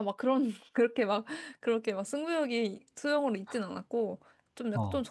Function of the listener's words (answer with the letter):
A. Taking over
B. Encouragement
B